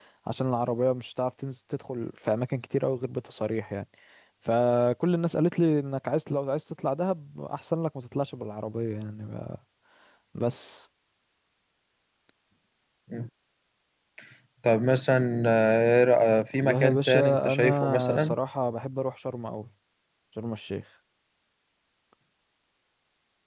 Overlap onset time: 16.5 s

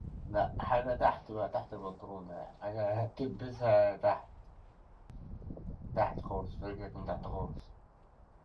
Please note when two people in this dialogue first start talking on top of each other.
none

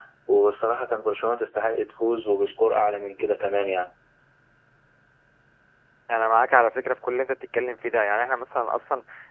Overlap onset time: none

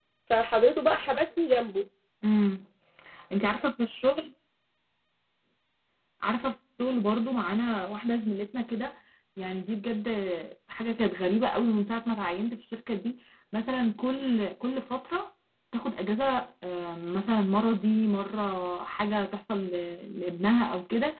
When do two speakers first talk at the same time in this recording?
none

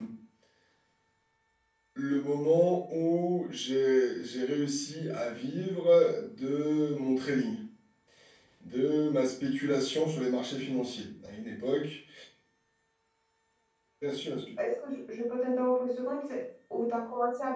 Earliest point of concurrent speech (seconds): none

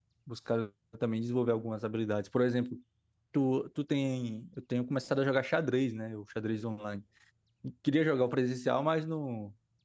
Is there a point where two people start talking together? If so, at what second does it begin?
none

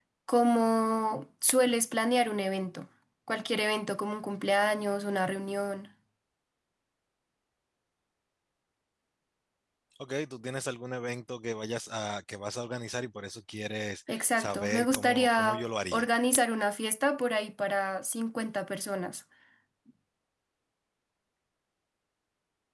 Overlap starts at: 14.1 s

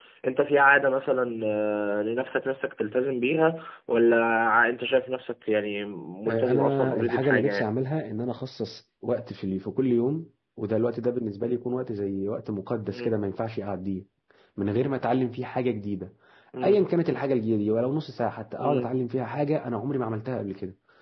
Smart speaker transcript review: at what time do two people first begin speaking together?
6.3 s

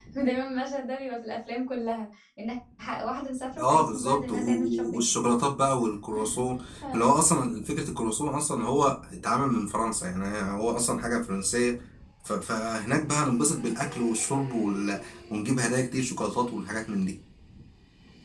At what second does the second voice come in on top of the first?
3.6 s

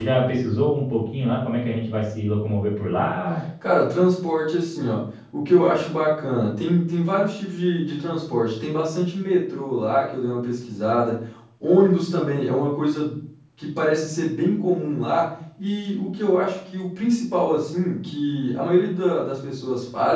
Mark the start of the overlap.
none

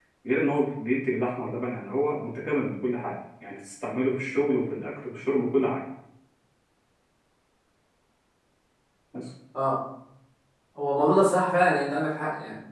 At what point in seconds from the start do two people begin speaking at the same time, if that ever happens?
none

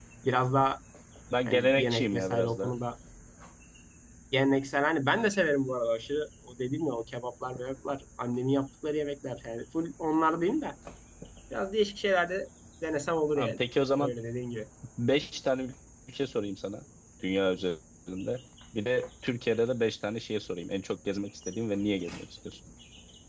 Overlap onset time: 1.5 s

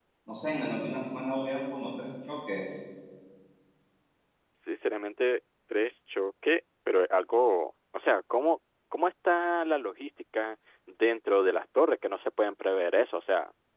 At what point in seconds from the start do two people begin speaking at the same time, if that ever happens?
none

